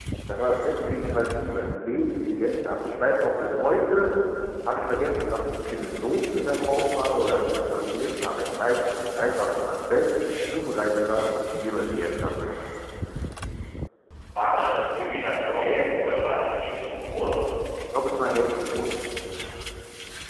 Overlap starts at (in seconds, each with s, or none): none